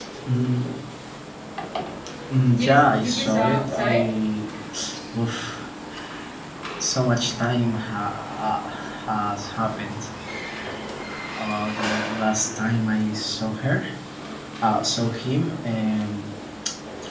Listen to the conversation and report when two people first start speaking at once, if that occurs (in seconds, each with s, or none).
2.6 s